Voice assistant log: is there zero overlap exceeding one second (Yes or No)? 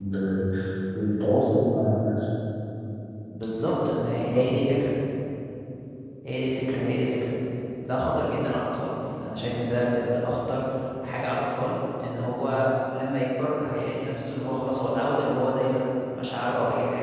Yes